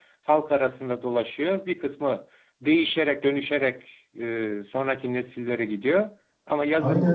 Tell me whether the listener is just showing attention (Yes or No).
No